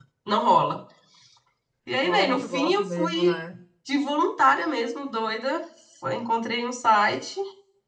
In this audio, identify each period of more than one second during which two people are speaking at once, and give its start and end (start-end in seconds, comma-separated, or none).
2.0-3.3